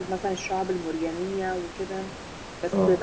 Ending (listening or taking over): listening